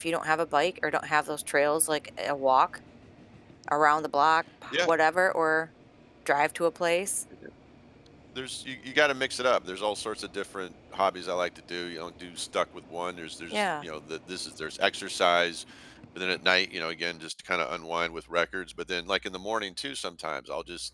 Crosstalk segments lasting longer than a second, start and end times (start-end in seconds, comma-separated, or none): none